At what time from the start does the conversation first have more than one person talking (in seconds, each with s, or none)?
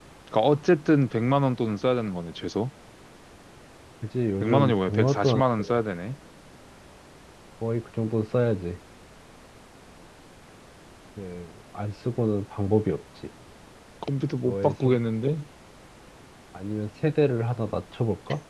4.4 s